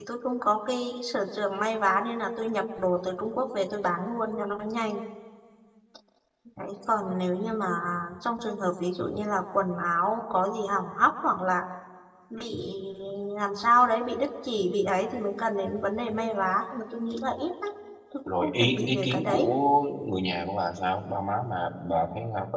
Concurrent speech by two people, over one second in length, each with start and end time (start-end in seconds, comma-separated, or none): 18.3-19.5